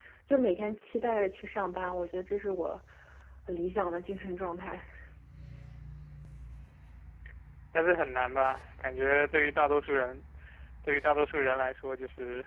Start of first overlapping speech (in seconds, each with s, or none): none